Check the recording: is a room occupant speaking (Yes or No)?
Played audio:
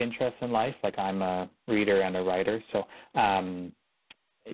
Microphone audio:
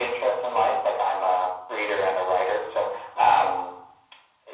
No